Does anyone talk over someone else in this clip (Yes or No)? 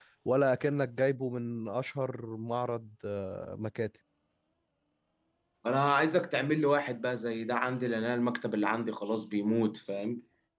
No